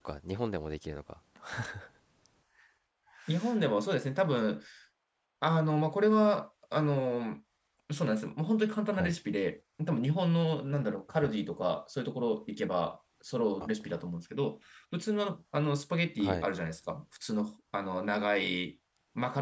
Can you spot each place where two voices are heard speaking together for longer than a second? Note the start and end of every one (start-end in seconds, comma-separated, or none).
none